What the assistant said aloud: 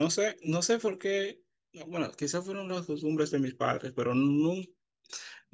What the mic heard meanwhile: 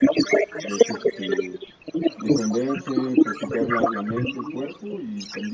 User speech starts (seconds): 0.6 s

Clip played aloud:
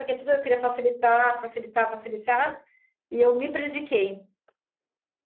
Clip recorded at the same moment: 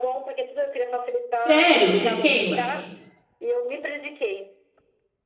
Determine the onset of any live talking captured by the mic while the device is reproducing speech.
1.4 s

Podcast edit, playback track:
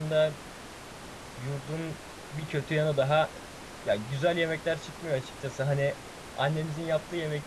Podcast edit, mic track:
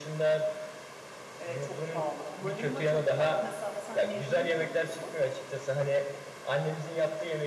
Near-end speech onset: 1.4 s

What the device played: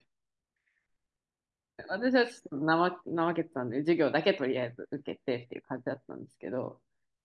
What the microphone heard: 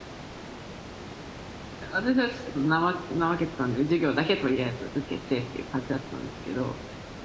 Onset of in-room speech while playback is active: none

